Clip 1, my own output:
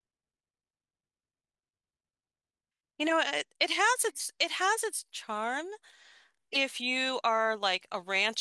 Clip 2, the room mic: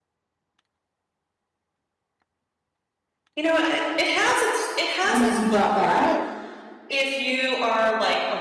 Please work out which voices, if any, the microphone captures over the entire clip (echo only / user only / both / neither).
both